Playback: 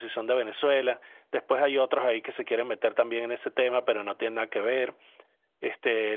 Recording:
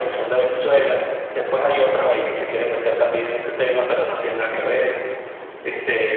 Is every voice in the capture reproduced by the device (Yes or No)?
Yes